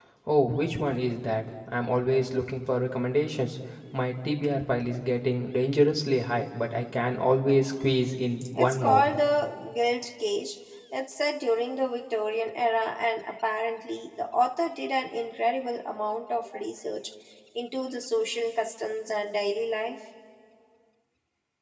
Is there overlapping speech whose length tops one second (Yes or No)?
No